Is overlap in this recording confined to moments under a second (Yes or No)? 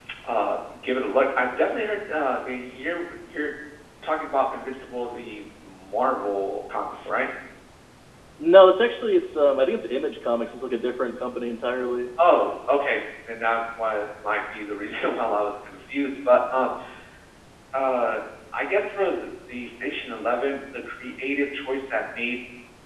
Yes